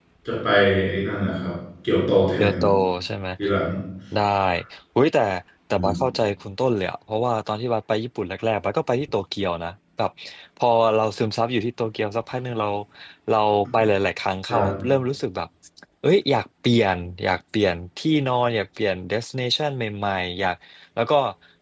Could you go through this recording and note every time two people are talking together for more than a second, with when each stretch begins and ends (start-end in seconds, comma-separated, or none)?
none